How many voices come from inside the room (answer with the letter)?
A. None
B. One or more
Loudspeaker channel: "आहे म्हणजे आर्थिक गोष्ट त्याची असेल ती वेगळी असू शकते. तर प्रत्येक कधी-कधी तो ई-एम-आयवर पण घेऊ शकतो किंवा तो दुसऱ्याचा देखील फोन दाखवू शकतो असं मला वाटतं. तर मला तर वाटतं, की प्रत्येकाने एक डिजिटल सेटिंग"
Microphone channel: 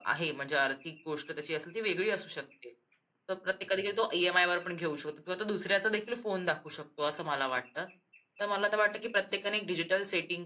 A